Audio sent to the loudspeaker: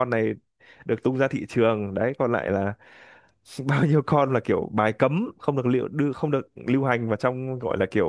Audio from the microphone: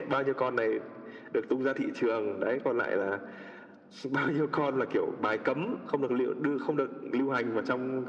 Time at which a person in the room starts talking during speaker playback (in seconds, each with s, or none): none